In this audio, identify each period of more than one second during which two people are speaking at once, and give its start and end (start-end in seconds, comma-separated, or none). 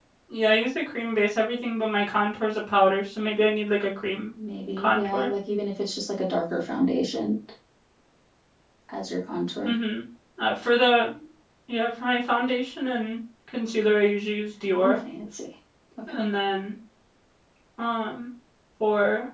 none